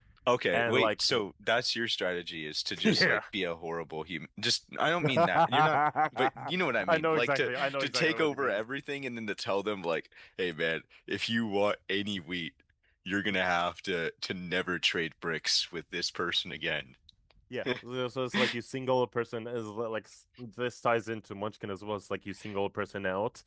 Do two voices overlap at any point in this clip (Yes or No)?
Yes